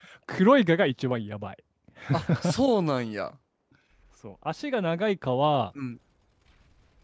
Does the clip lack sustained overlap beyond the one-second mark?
Yes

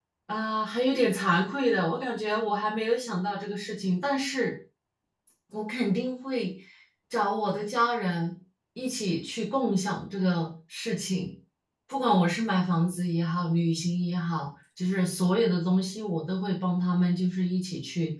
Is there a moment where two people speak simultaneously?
No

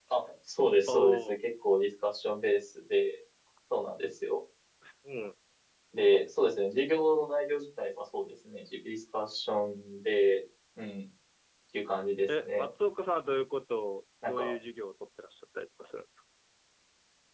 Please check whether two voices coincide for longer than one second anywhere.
No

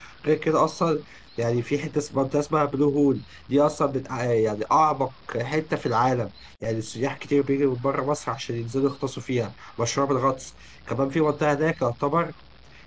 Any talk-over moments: No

